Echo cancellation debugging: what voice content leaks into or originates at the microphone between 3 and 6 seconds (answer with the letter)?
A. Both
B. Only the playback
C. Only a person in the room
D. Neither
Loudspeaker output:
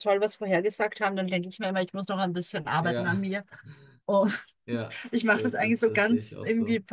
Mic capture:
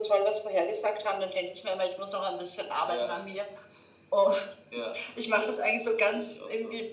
B